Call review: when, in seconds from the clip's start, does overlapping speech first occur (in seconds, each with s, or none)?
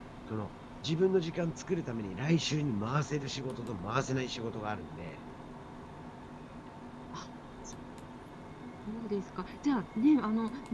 none